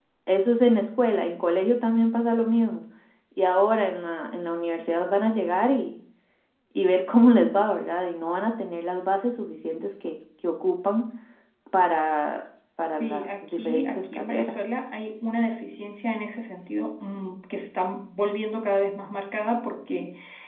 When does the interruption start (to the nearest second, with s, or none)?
13 s